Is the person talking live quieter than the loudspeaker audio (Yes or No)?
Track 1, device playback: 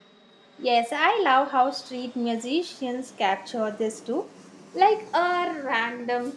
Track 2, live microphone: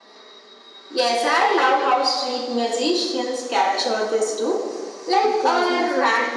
Yes